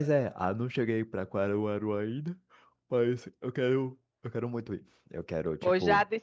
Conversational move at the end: taking over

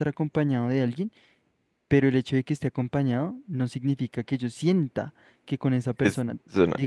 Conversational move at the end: listening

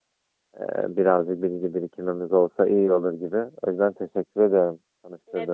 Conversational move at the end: taking over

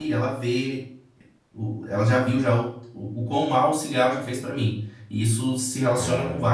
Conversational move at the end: listening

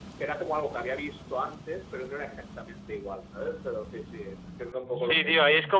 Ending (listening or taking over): taking over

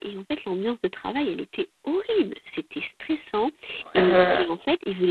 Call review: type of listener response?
listening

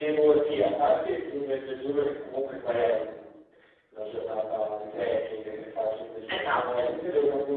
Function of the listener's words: listening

